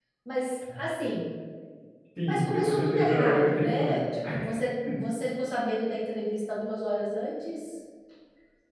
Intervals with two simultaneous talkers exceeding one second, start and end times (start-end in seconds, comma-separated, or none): 2.3-4.1